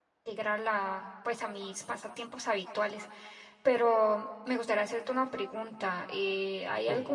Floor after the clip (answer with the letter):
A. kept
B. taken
A